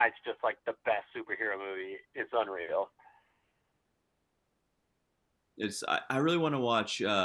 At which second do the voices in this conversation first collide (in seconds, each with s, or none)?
none